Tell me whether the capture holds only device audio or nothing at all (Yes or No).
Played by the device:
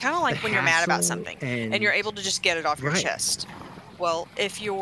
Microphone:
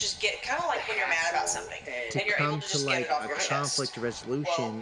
No